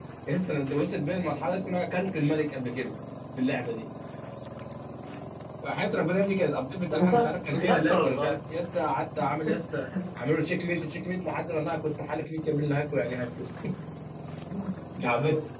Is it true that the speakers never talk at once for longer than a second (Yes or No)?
No